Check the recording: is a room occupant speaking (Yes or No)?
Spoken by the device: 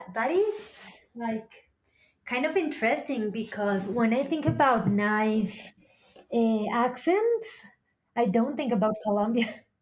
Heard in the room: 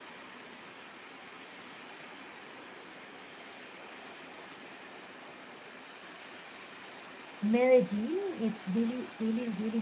Yes